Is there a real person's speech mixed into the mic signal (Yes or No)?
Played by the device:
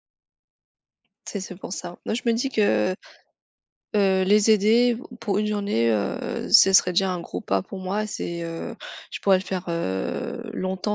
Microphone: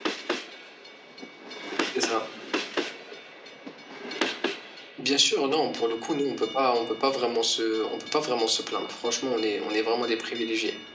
Yes